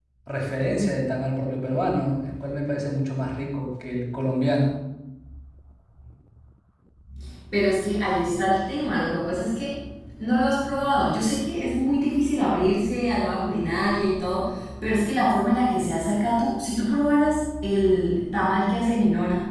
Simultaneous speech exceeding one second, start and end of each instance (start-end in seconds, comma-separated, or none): none